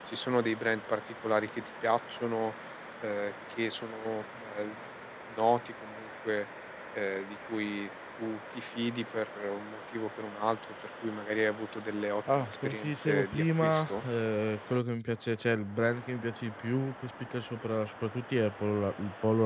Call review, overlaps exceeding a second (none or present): present